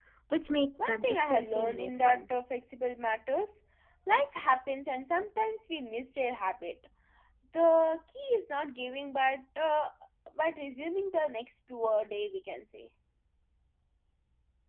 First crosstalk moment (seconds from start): 0.8 s

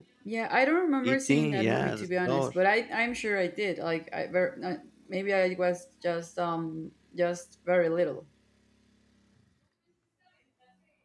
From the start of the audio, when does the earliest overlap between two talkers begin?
1.0 s

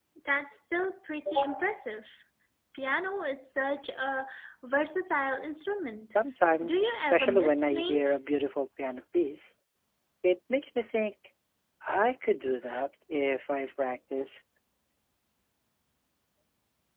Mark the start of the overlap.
6.6 s

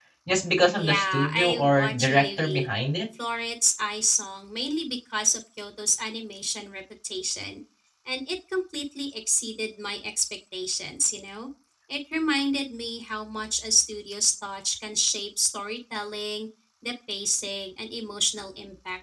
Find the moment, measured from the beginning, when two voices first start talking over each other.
0.8 s

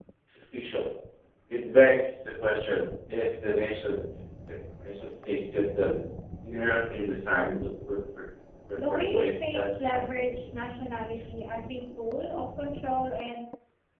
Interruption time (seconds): 8.8 s

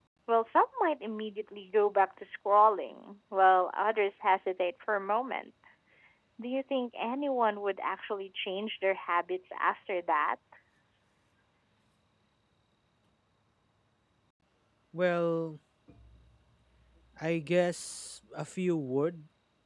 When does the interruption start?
none

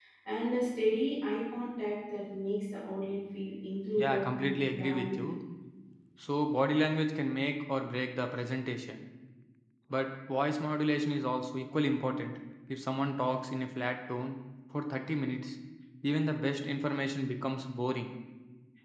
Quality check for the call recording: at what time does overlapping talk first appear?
4.0 s

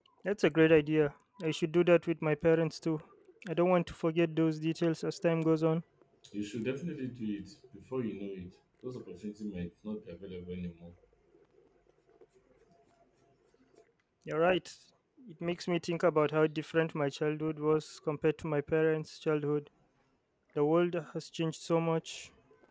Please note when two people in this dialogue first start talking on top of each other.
none

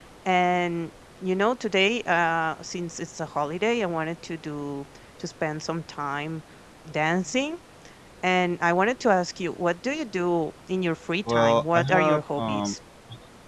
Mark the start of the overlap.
11.3 s

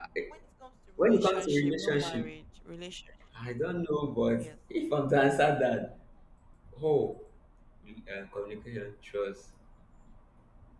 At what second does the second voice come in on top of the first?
1.0 s

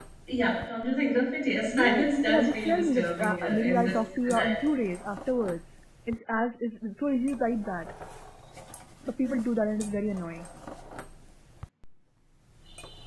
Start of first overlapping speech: 1.7 s

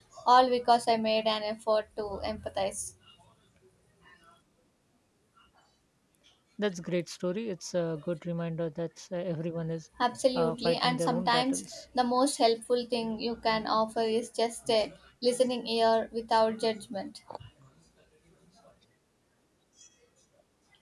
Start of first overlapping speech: 10.3 s

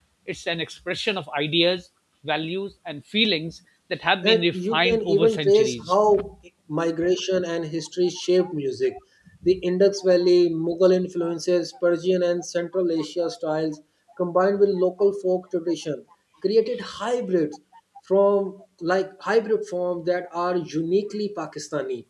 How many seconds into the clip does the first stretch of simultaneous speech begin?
4.2 s

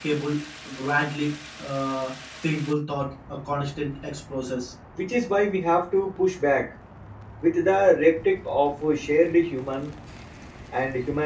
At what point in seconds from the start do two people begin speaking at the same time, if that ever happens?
none

